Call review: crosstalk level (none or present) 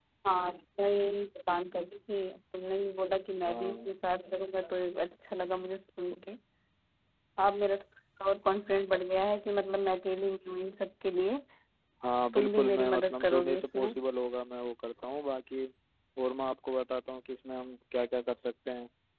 present